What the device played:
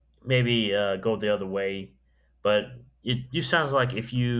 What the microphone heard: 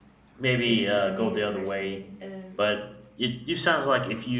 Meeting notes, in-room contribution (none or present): present